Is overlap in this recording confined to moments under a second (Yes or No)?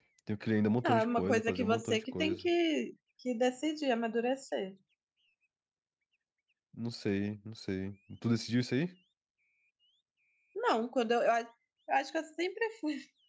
No